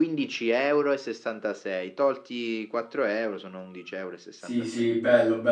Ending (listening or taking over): taking over